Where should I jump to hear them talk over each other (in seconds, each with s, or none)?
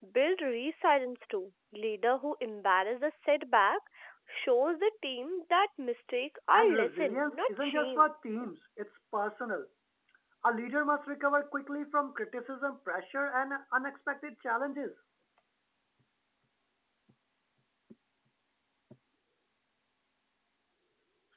6.5 s